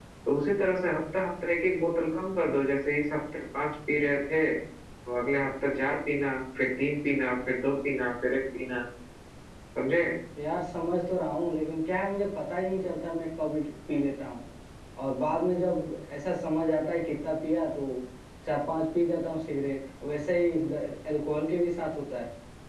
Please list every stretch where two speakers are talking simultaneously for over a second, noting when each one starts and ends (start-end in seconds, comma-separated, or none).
none